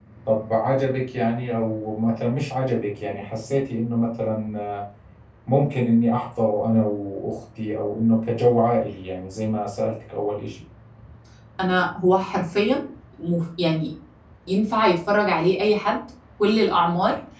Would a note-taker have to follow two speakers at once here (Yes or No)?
No